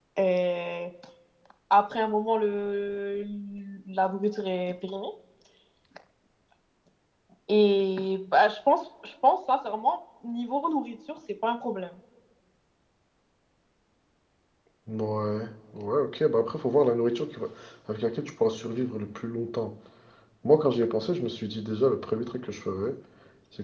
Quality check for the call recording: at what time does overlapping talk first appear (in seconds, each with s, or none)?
none